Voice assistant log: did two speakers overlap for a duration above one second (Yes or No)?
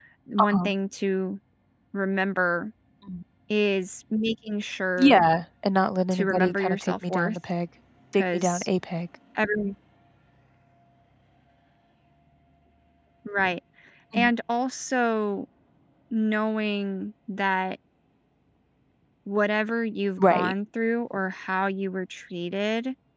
Yes